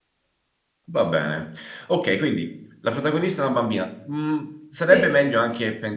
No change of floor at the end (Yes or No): Yes